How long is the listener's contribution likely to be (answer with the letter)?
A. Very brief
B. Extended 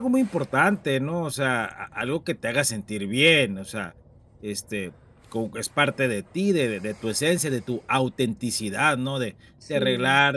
A